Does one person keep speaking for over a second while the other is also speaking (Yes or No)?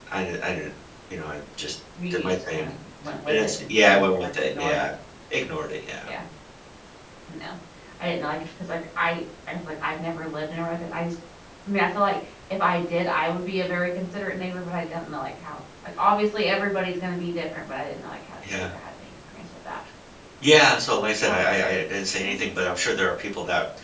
Yes